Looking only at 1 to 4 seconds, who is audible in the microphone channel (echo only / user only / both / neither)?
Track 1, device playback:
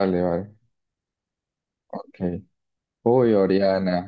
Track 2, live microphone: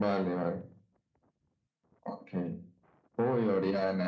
echo only